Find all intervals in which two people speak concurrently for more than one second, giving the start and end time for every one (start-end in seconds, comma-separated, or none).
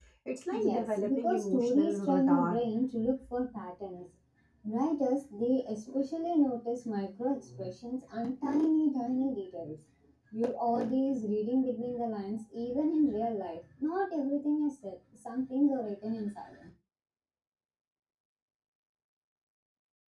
0.6-2.6